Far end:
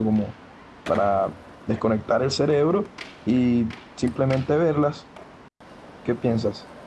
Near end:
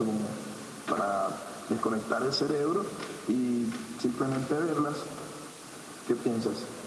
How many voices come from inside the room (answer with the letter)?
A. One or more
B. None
B